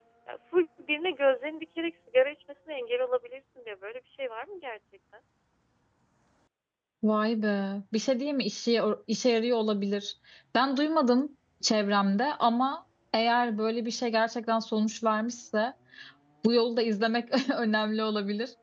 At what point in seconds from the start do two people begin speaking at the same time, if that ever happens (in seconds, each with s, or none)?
none